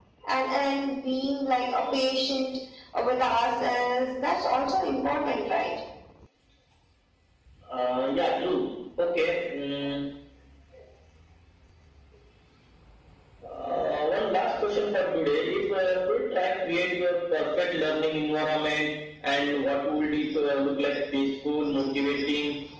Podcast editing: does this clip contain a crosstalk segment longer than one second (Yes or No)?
No